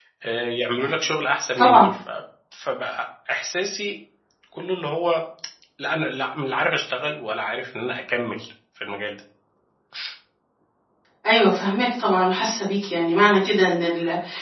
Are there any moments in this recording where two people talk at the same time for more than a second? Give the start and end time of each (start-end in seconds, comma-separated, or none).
none